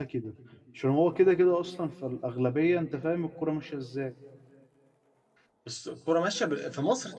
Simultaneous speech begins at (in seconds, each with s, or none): none